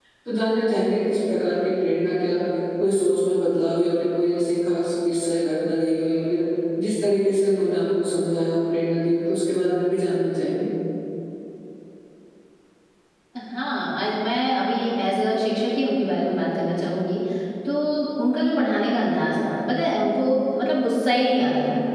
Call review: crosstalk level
none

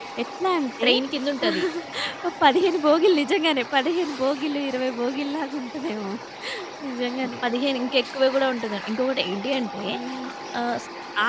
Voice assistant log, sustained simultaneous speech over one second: none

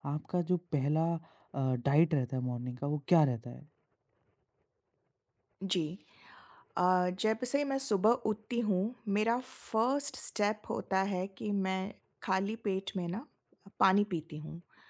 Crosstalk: none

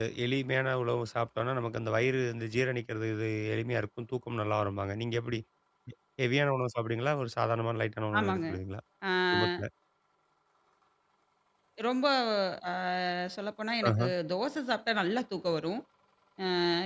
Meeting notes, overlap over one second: none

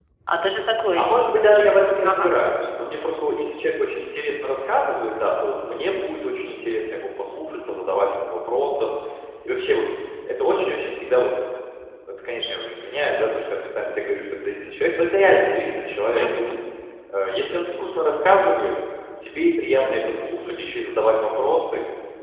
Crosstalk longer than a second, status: none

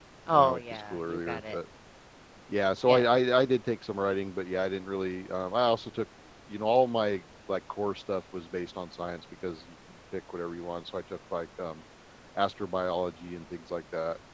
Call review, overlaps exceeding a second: present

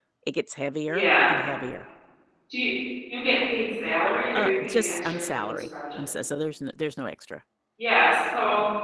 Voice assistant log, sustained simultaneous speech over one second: present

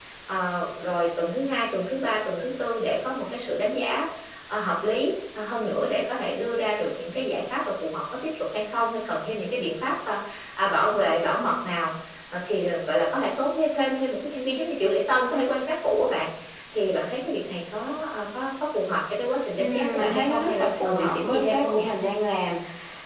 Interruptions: present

